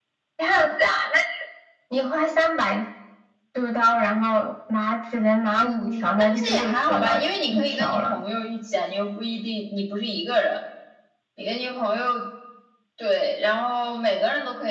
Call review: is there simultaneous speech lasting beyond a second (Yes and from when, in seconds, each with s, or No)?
Yes, from 5.5 s